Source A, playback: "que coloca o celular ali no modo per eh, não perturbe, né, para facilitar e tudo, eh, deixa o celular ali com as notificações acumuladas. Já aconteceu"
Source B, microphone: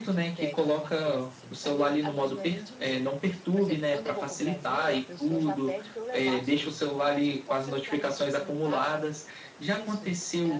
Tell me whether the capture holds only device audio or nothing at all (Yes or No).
No